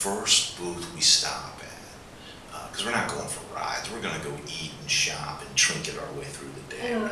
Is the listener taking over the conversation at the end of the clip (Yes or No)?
Yes